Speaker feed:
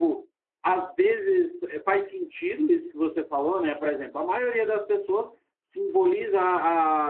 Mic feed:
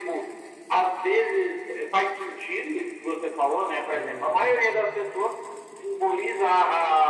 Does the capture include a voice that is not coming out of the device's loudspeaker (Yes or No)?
Yes